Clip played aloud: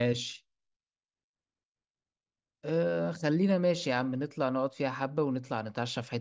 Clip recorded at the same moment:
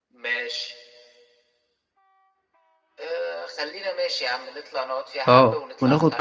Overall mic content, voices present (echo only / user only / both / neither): both